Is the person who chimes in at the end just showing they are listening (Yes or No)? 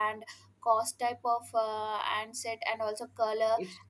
Yes